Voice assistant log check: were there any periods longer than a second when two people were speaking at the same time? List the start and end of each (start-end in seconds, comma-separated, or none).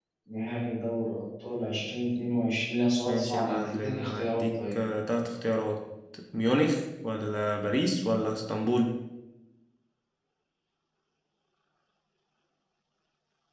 3.0-4.8